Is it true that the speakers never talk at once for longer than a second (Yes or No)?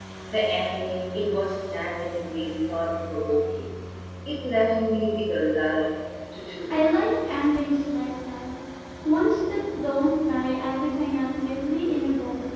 Yes